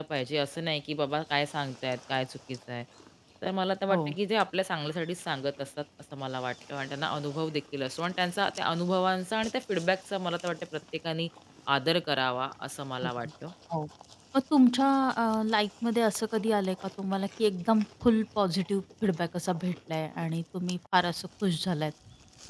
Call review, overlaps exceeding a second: none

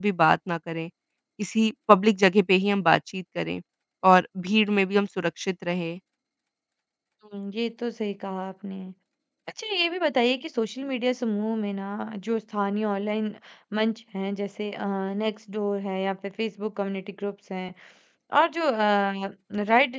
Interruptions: none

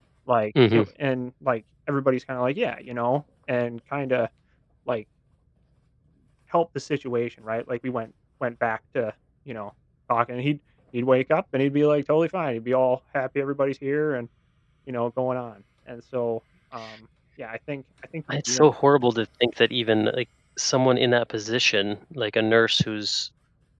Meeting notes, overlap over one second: none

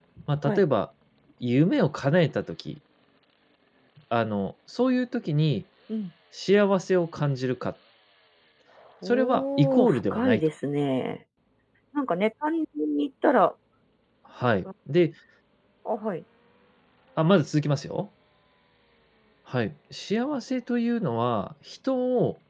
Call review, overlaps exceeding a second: present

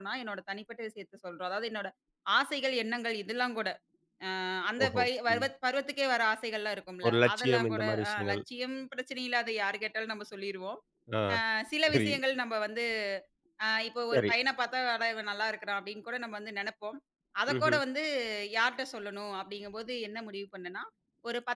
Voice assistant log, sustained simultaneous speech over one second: present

